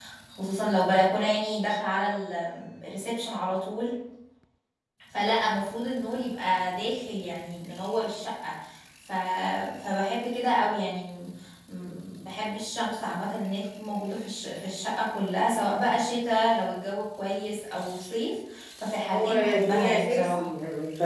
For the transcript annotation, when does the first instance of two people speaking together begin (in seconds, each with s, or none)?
19.1 s